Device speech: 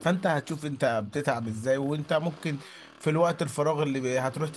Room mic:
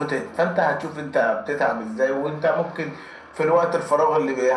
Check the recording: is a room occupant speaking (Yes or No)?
No